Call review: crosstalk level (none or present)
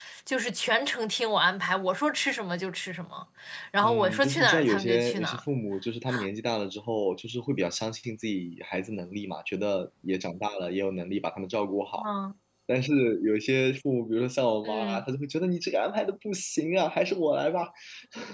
present